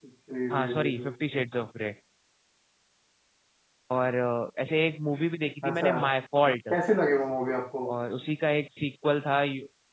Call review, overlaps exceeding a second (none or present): none